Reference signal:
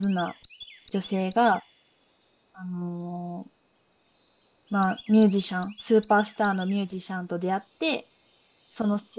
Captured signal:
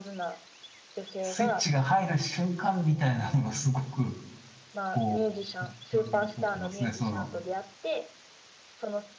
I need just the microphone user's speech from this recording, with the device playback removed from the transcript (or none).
スイッチが入る瞬間みたいなのがすごく、こう、に残ってますね、その。